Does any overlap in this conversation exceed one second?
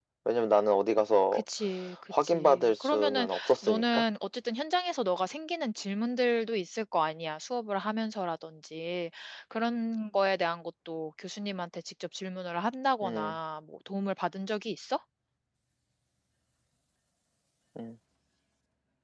Yes, from 2.1 s

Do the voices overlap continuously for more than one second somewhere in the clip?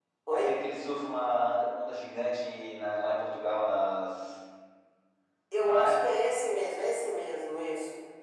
No

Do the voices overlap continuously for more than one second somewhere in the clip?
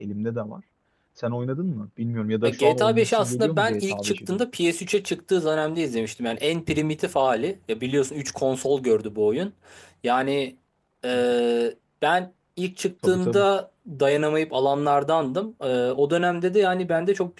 Yes, from 2.4 s

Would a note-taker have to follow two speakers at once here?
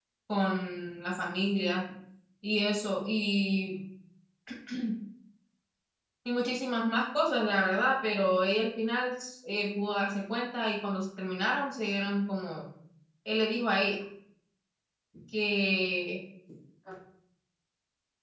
No

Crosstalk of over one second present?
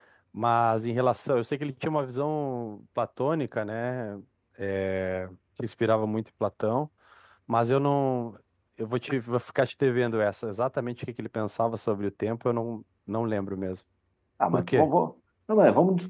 No

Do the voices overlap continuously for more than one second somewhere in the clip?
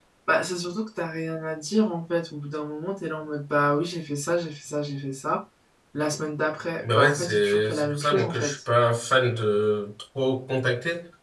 Yes, from 6.8 s

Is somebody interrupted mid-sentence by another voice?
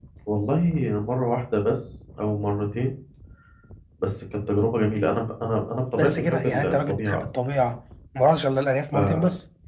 Yes, from 6.0 s

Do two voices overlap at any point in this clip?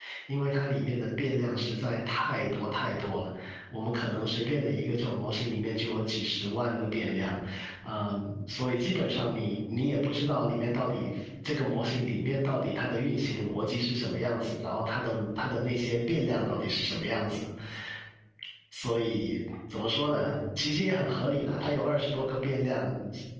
No

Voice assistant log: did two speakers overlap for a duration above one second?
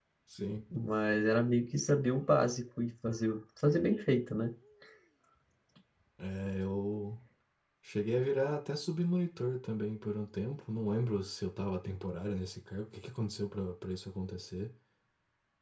No

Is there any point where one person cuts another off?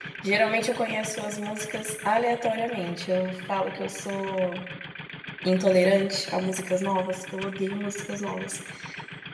No

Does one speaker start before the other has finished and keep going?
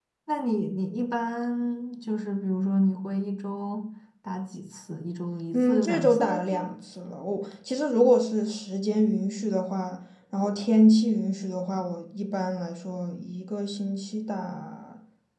Yes, from 5.5 s

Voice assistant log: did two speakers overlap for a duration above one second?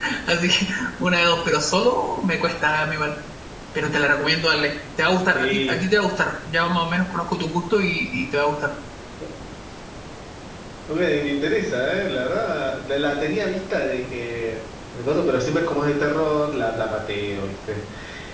No

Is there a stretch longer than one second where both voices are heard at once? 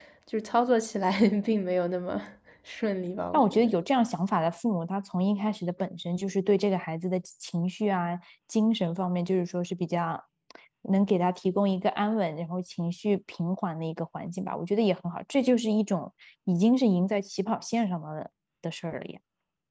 No

